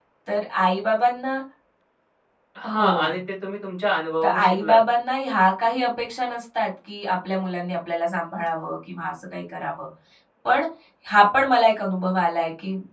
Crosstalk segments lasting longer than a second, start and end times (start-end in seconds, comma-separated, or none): none